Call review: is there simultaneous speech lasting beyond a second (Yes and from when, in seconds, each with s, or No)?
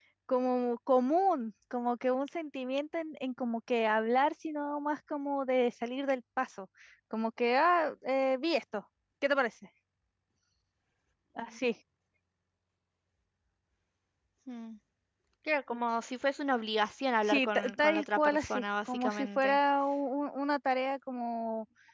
Yes, from 17.2 s